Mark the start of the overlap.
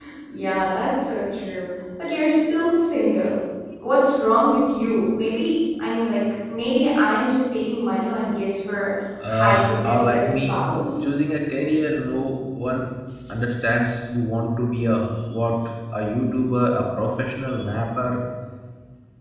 9.4 s

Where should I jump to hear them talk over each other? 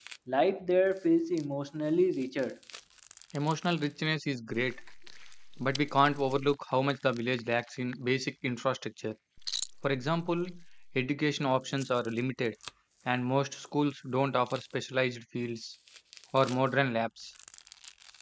none

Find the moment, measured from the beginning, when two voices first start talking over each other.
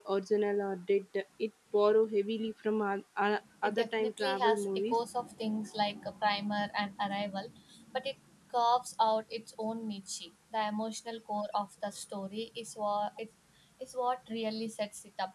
3.6 s

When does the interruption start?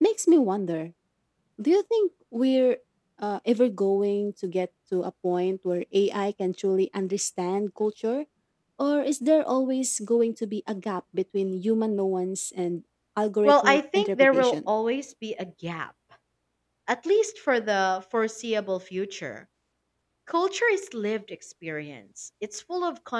13.4 s

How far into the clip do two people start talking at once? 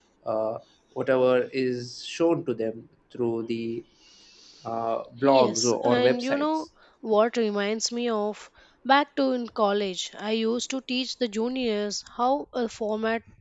5.2 s

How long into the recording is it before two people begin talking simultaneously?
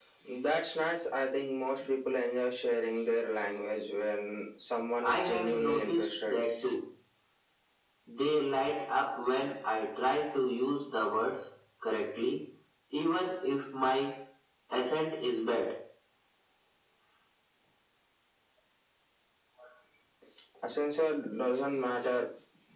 5.0 s

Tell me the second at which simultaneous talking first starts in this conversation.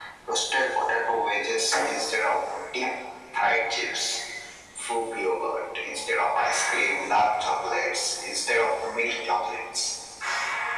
none

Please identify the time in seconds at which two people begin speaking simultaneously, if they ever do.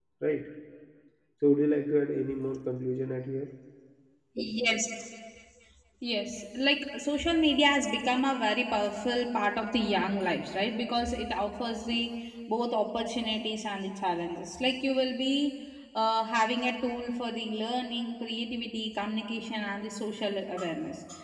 none

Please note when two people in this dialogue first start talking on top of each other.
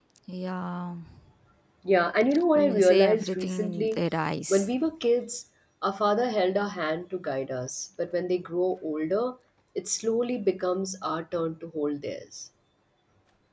2.5 s

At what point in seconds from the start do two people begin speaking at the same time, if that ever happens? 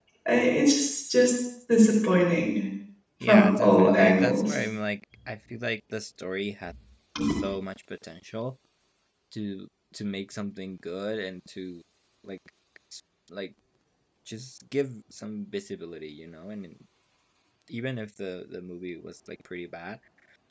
3.3 s

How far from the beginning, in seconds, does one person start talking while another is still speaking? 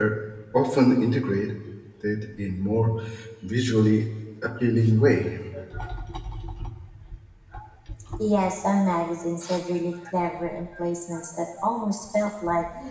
none

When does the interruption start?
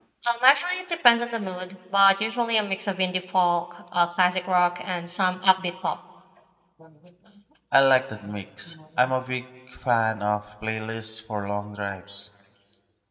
none

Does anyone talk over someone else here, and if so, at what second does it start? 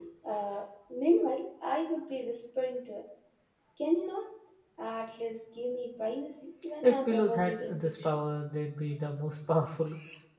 6.8 s

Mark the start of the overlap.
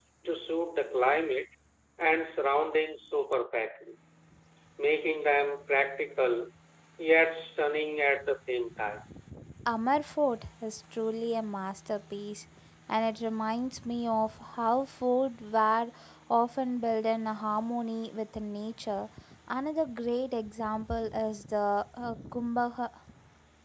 none

